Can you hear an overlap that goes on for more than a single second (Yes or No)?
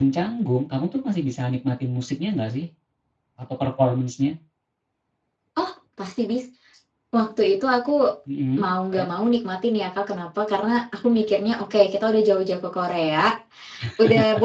No